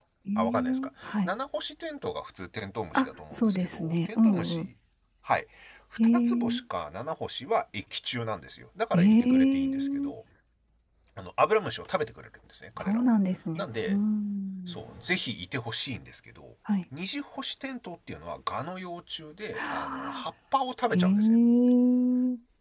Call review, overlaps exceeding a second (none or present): present